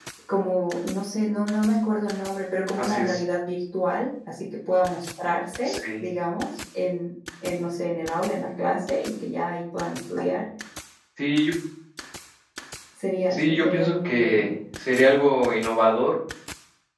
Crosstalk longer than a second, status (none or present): present